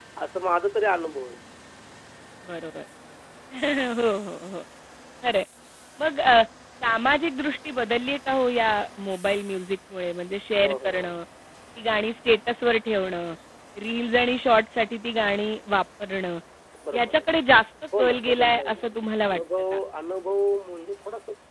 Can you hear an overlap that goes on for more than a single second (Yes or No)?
Yes